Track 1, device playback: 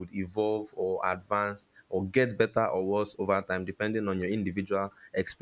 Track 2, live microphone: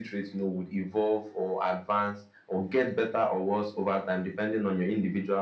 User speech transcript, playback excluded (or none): none